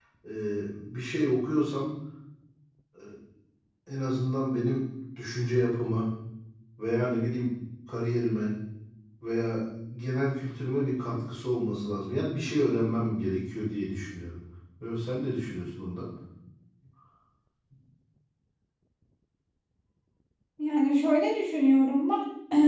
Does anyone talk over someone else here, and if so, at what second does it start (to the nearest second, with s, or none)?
none